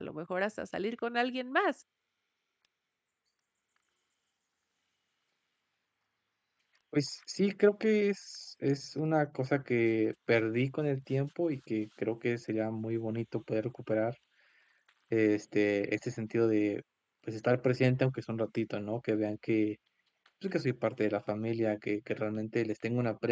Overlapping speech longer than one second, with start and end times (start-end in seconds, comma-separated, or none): none